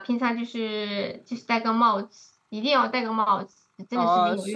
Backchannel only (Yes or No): No